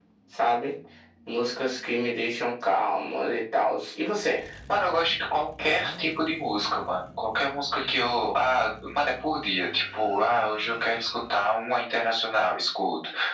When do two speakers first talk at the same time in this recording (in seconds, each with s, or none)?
none